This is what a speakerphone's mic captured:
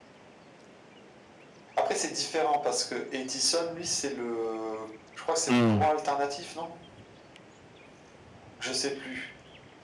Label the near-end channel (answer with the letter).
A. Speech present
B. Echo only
A